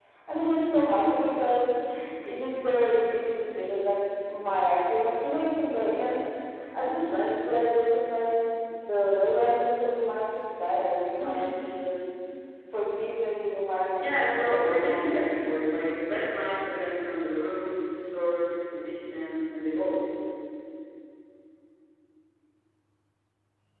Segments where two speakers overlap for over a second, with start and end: 14.0-15.4

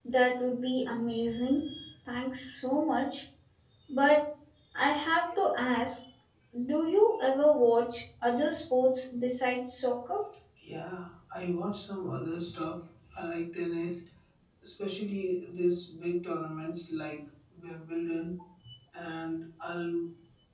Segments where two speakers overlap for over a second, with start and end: none

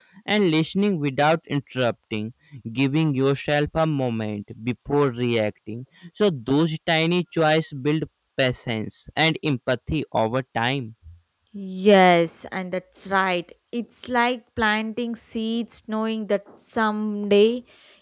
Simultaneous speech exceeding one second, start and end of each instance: none

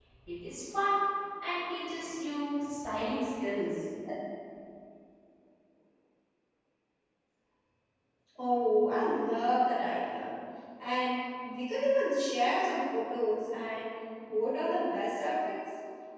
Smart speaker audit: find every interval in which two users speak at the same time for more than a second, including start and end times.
none

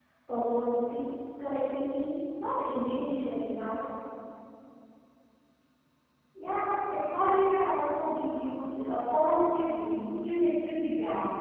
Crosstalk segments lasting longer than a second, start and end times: none

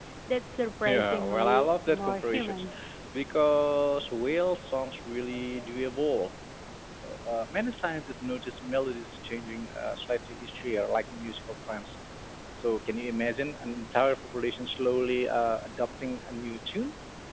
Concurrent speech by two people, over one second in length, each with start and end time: 0.8-2.7

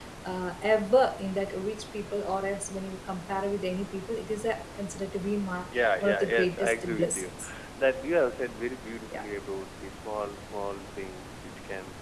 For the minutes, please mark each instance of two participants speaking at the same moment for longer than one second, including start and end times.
6.0-7.3

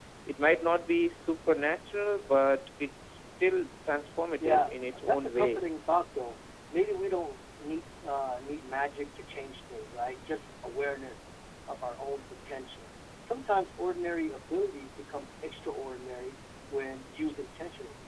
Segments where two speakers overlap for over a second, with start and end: 4.4-5.6

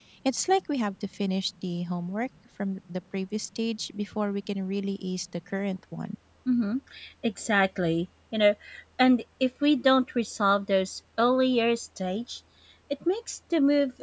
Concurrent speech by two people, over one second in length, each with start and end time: none

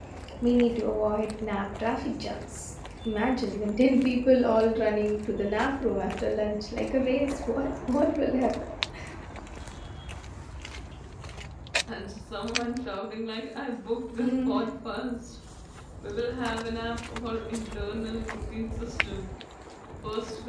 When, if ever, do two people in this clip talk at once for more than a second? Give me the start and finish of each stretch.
none

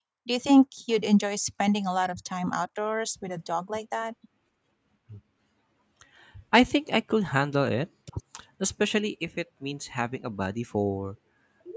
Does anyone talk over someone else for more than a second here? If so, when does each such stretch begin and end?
none

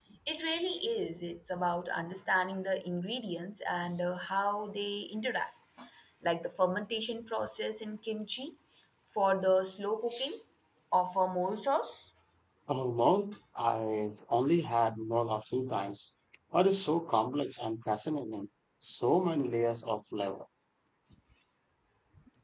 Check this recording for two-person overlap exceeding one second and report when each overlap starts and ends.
none

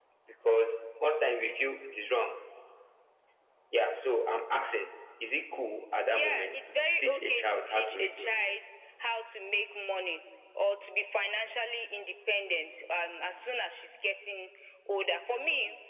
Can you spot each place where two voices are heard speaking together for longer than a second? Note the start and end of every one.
6.1-8.3

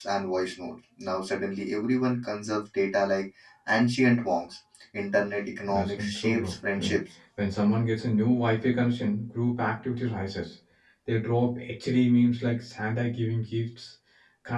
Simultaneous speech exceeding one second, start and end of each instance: 5.7-7.0

